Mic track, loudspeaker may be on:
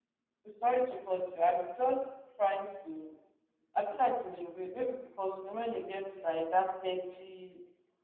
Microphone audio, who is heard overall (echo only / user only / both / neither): user only